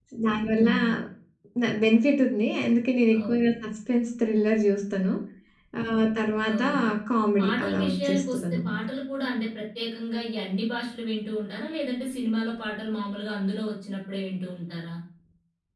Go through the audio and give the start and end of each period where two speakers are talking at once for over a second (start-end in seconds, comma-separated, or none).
7.4-8.8